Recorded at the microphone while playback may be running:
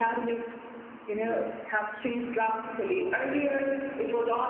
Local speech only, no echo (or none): Yes.